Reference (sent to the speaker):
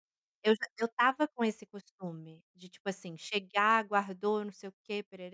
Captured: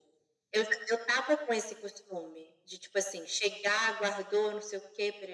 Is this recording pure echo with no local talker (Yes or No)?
Yes